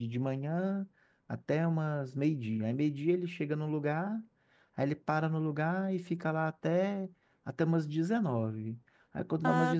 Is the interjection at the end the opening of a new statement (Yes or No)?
No